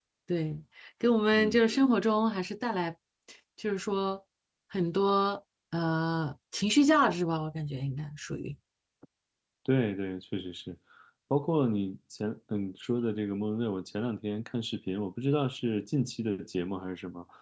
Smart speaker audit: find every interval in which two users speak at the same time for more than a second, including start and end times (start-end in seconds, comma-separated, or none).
none